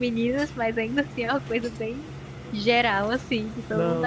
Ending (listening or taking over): taking over